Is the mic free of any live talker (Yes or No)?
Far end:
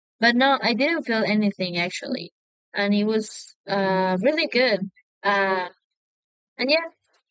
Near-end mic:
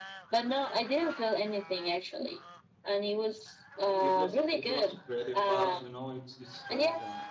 No